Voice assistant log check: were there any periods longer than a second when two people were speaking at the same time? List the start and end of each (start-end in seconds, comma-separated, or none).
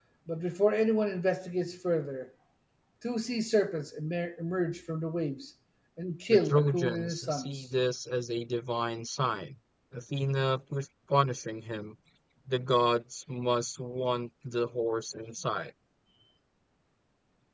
6.3-7.6